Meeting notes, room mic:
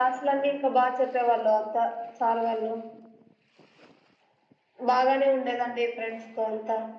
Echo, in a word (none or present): present